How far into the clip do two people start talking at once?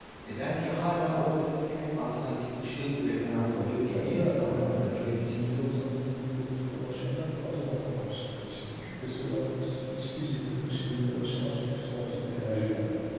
4 s

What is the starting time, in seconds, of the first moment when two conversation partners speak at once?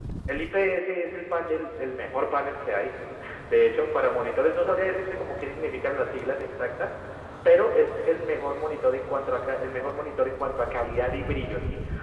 none

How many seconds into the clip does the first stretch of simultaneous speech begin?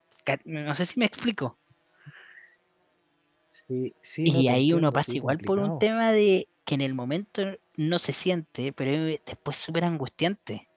4 s

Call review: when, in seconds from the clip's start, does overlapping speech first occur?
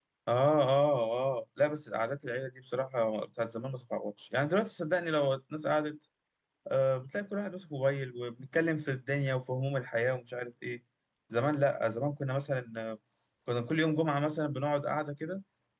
none

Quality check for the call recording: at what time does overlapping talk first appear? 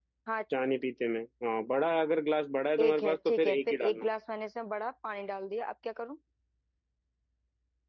3 s

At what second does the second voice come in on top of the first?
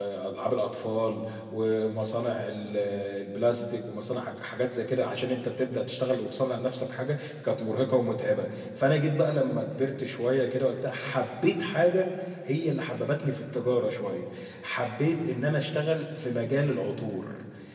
none

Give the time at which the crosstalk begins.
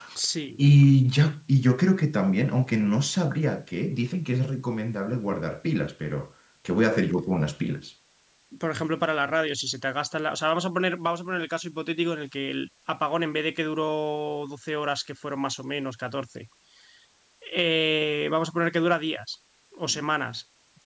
none

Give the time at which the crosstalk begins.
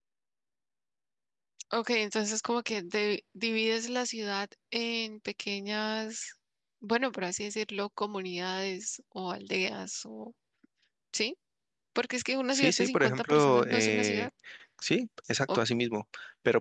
13 s

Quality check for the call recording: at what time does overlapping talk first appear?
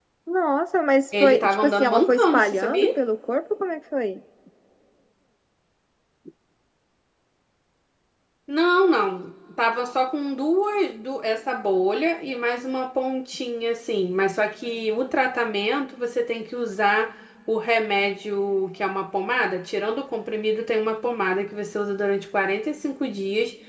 1 s

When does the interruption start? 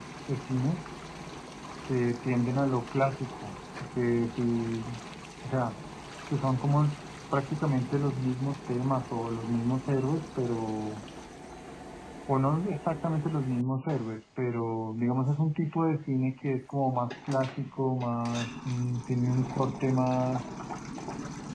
none

